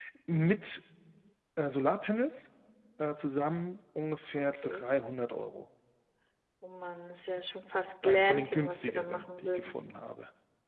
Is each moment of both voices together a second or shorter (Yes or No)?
No